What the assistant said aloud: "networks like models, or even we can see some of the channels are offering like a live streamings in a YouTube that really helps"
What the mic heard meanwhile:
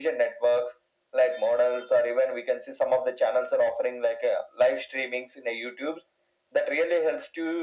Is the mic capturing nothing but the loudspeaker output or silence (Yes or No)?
Yes